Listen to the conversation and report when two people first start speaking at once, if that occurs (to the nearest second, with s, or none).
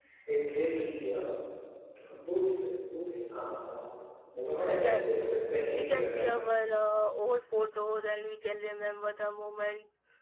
5 s